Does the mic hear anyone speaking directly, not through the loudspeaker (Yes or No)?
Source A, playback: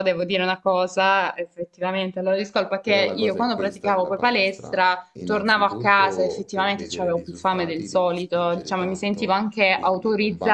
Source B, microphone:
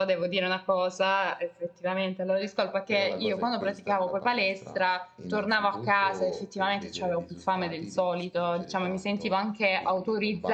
No